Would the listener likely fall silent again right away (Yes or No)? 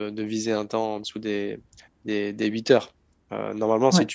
Yes